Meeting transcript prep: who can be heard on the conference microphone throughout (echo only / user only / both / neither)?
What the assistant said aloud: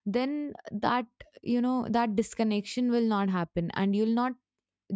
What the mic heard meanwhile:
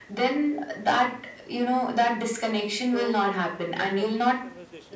both